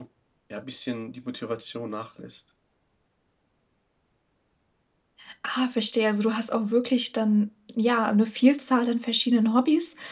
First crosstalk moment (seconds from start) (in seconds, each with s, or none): none